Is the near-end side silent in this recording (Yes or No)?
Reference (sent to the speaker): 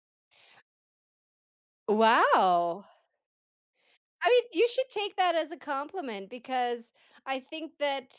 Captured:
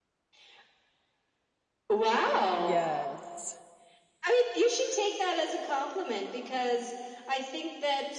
No